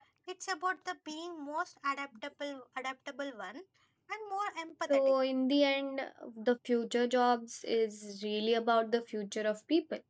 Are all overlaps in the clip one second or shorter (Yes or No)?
Yes